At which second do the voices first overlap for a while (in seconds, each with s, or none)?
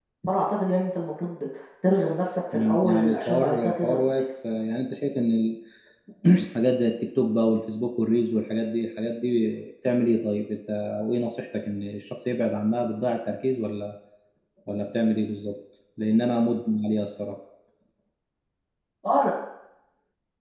2.5 s